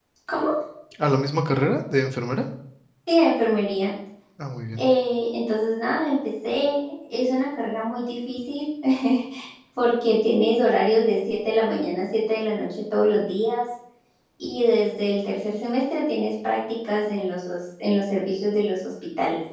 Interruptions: none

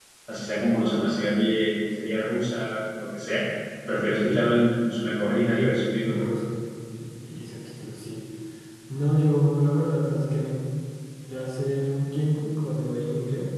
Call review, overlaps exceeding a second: none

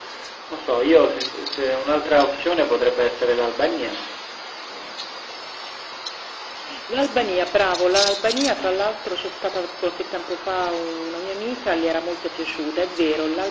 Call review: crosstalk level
none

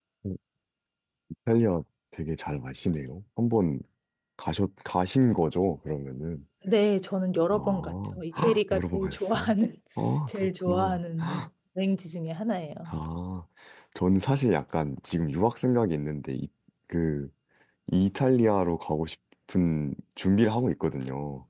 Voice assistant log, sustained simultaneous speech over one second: present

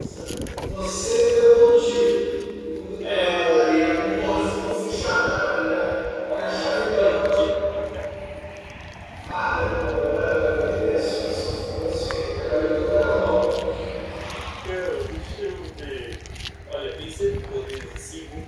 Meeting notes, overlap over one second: present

